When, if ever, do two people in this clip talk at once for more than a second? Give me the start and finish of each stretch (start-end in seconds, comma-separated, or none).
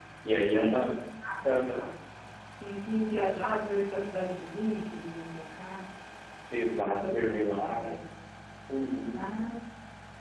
6.7-7.9